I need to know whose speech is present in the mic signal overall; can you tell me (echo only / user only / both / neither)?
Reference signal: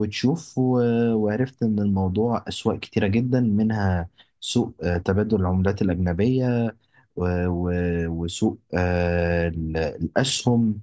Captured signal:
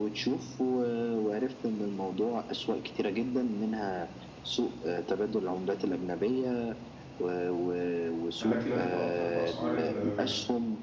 both